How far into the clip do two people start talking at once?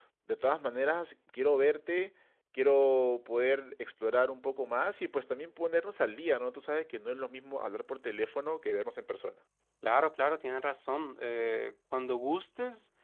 none

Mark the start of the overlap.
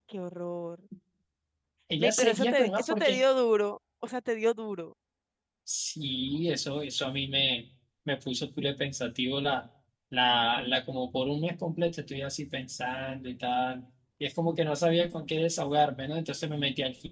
2.0 s

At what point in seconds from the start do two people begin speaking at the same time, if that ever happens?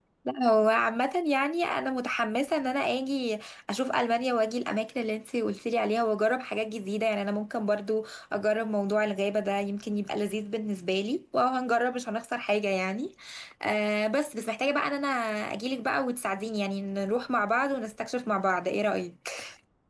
none

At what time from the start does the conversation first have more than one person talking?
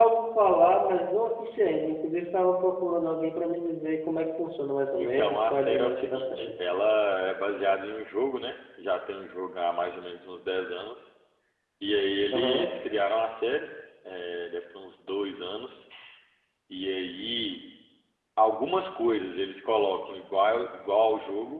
5.0 s

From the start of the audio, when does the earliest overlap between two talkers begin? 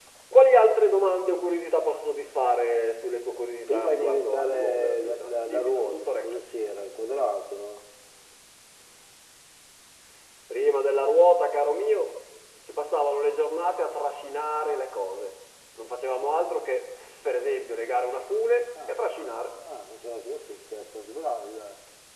3.7 s

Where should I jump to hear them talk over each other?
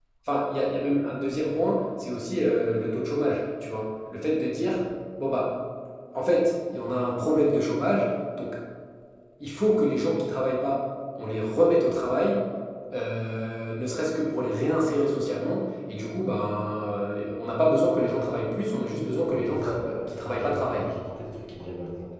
19.3 s

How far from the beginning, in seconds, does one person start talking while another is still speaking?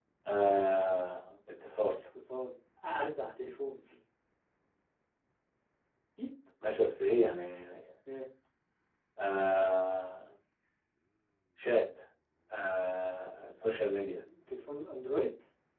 none

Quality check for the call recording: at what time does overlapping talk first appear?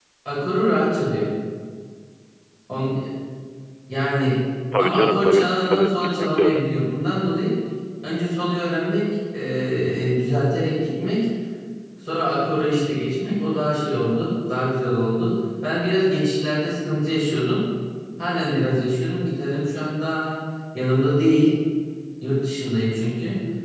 4.8 s

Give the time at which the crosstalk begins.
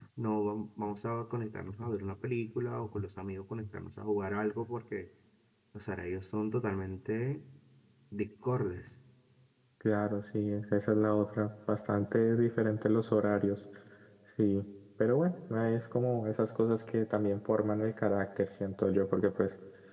none

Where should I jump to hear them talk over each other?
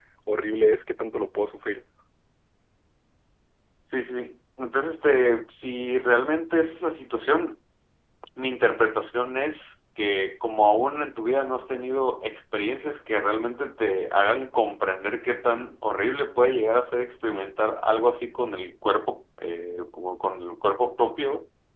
none

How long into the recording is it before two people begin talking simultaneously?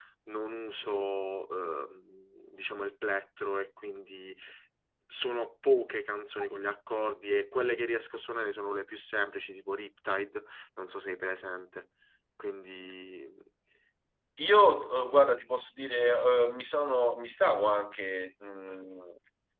none

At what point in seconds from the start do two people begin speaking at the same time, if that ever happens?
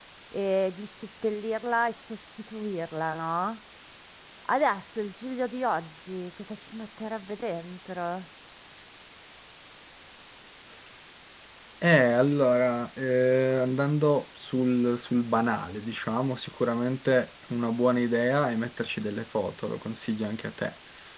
none

